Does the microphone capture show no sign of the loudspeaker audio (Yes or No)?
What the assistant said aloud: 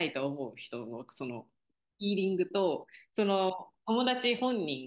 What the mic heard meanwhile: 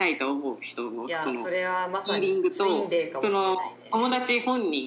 No